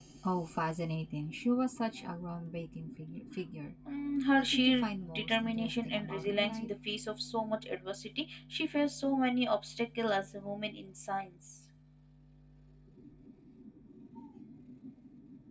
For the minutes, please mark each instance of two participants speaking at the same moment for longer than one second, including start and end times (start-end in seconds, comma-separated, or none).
4.3-6.7